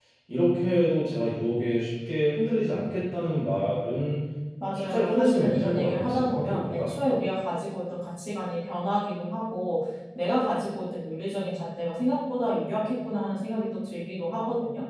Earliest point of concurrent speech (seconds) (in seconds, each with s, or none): 4.8 s